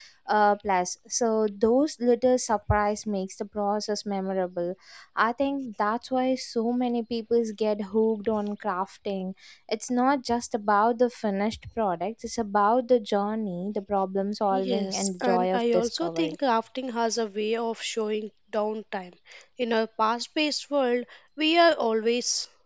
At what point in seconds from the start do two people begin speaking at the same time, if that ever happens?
14.5 s

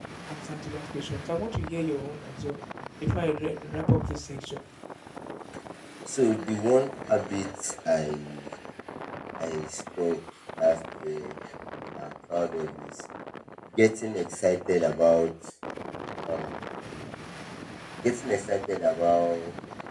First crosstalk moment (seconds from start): none

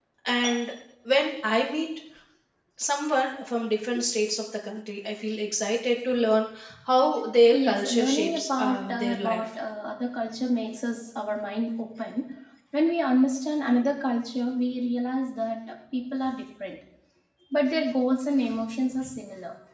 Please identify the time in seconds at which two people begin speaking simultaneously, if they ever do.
7.5 s

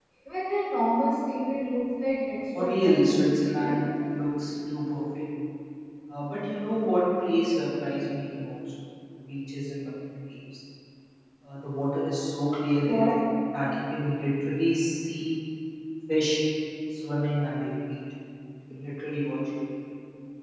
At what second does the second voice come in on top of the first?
2.5 s

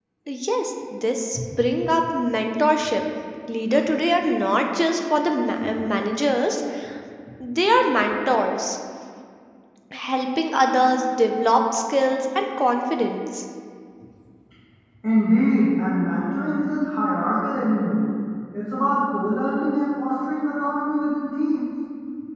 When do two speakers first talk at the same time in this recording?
none

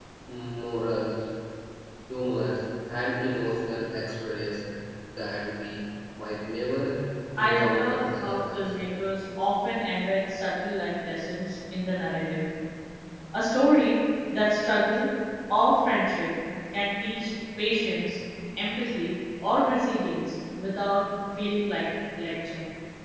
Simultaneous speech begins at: 7.4 s

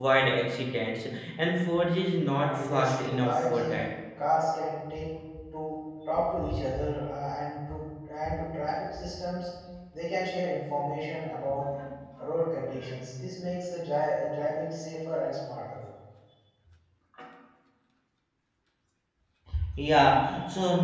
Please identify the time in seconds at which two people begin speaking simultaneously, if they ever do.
2.4 s

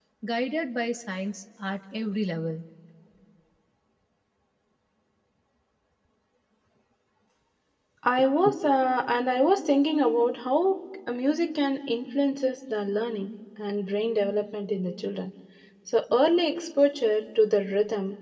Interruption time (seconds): none

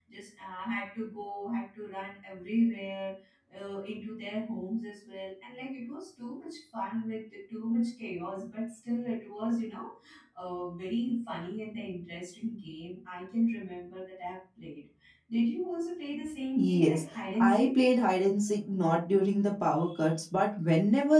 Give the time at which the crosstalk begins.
16.6 s

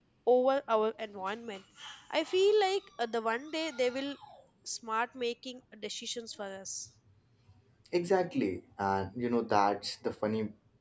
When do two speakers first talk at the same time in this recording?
none

